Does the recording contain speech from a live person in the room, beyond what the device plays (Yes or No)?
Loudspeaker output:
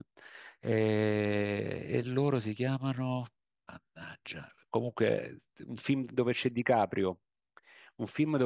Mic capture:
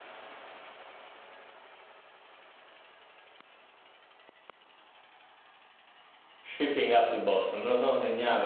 Yes